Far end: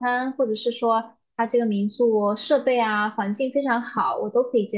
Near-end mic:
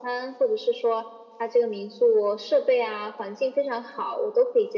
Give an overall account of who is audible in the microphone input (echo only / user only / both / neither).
echo only